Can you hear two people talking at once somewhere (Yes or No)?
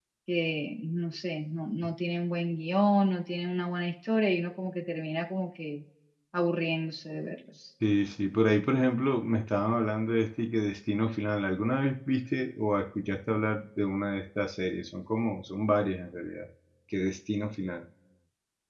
No